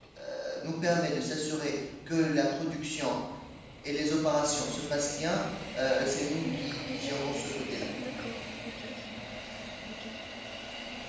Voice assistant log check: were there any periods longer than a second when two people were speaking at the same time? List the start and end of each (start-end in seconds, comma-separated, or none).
6.4-7.8